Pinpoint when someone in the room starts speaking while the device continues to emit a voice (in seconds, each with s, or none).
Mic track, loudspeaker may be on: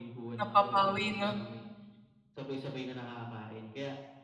0.4 s